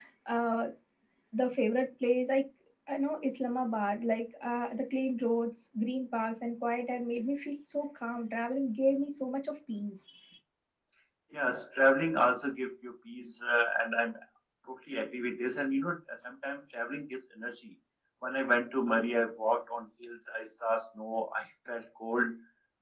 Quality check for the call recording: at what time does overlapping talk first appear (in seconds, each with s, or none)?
none